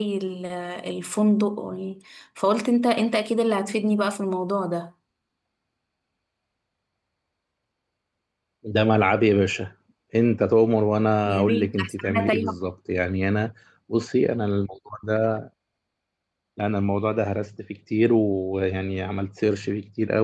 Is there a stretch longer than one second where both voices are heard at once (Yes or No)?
Yes